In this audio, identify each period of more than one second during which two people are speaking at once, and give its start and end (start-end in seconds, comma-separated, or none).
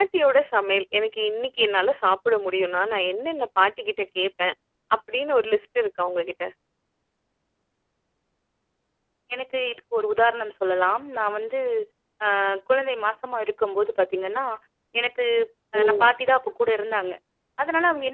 none